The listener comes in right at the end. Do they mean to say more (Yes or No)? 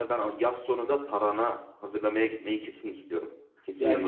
Yes